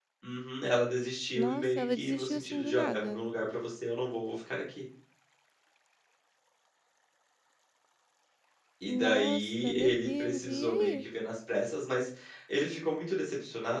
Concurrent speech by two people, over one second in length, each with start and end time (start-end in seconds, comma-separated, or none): 1.4-3.3, 8.9-11.0